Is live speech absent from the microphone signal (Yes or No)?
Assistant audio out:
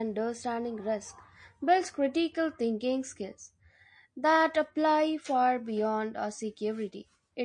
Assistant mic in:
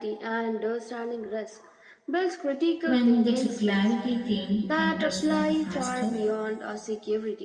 No